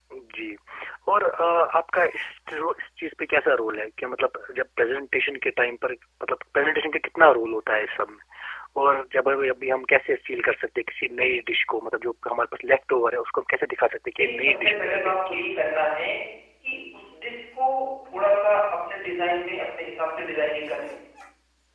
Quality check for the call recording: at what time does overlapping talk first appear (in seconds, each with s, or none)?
14.2 s